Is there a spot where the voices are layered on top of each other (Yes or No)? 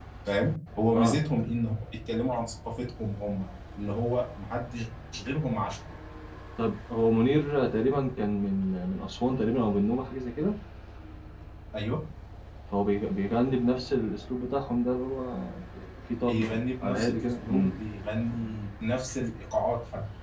Yes